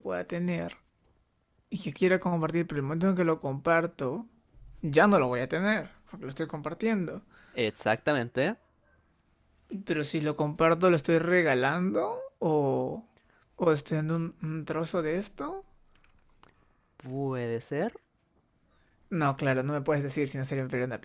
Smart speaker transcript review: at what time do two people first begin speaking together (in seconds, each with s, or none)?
none